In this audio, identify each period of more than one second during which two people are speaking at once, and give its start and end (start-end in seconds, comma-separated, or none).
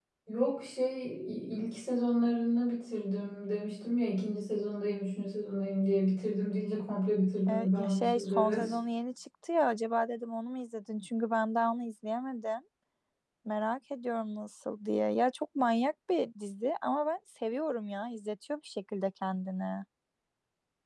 7.5-8.7